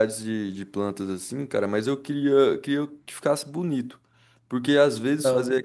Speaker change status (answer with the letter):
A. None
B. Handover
A